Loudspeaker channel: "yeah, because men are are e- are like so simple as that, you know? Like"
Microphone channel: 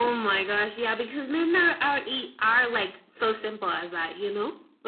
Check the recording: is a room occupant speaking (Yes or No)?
No